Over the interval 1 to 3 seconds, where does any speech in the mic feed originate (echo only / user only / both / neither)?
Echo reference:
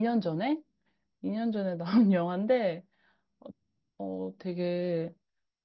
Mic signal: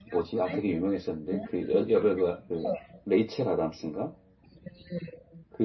both